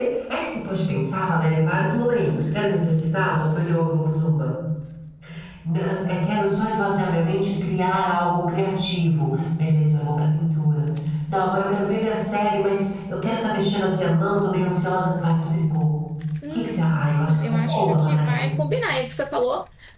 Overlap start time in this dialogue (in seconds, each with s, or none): 16.5 s